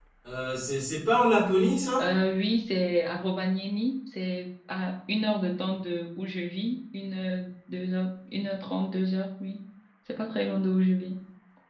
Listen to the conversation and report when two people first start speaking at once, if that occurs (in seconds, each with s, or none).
none